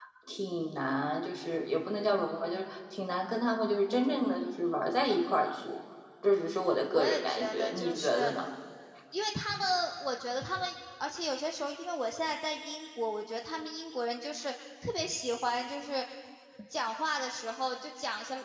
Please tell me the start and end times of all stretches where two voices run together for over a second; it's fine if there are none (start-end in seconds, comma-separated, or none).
6.9-8.3